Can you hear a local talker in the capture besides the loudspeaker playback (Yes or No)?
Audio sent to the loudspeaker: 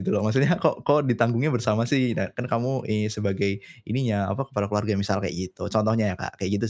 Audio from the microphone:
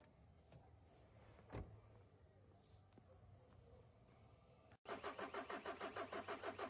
No